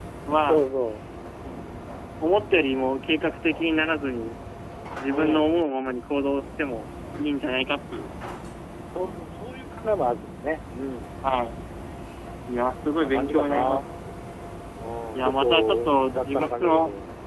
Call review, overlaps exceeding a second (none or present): present